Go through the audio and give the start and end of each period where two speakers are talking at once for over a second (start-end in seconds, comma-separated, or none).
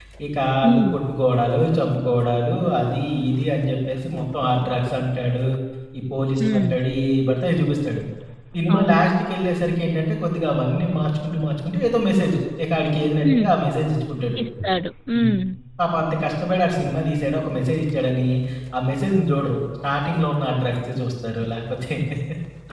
none